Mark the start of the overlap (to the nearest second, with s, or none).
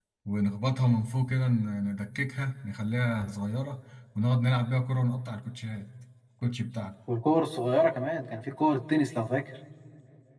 none